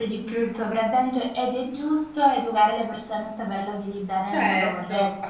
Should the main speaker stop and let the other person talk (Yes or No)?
Yes